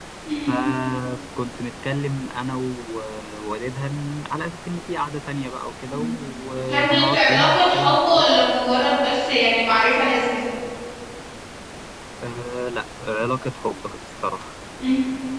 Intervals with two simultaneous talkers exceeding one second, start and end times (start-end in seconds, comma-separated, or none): 6.7-8.2